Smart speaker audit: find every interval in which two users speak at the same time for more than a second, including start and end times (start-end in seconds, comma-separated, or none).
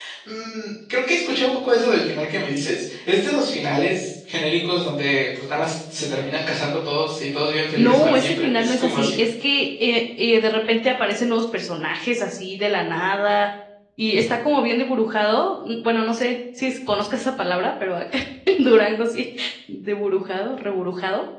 7.8-9.2